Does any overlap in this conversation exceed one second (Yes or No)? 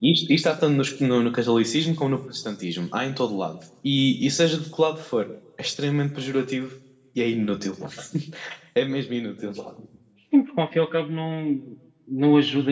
No